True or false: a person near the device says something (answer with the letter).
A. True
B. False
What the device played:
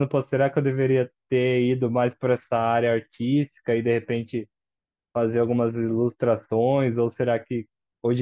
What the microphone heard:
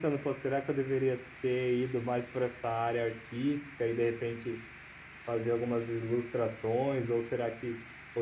B